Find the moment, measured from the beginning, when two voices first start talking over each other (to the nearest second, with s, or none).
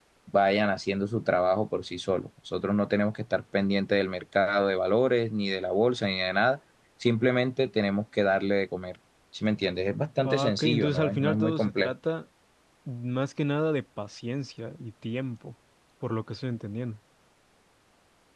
10 s